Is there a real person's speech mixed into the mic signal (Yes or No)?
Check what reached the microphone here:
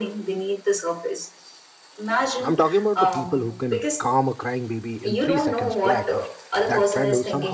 Yes